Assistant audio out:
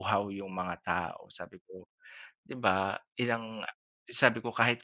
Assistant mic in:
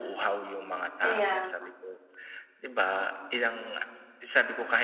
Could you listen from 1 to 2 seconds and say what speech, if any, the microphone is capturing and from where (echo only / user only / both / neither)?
both